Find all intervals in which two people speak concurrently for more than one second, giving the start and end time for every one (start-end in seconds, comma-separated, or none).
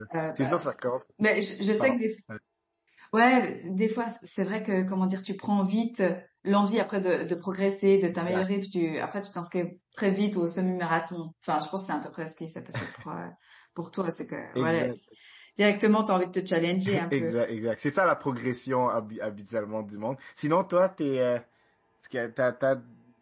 none